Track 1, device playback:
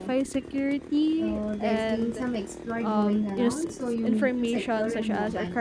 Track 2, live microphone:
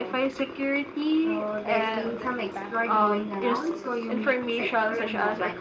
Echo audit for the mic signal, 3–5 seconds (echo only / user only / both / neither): both